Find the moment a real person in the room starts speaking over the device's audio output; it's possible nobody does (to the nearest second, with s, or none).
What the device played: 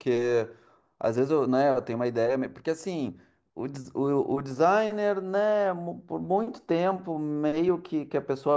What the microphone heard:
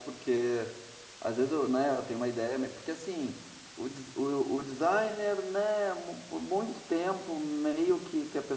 none